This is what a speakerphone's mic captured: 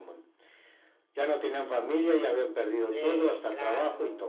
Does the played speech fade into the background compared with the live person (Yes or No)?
No